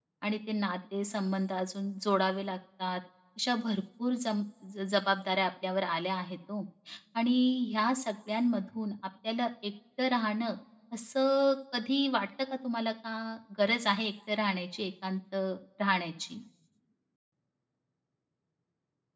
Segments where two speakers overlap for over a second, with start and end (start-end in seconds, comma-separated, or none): none